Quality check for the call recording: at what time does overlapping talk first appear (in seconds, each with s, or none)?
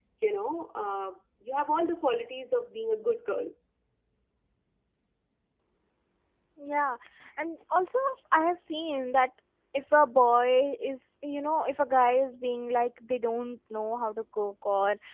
none